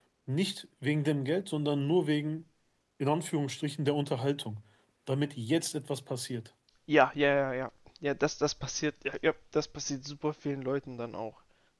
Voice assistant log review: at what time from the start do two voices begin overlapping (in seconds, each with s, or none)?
none